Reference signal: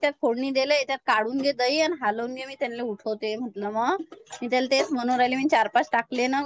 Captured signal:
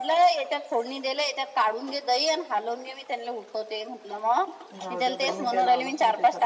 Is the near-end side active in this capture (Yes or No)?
Yes